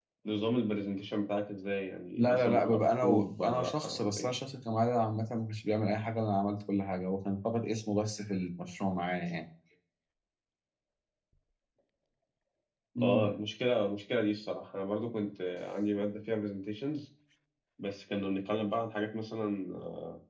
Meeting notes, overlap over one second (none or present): present